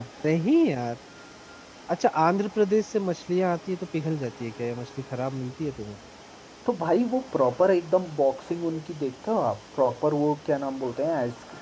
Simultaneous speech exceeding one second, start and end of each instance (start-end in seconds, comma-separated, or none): none